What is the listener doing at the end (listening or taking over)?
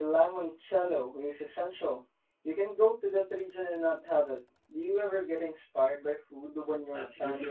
taking over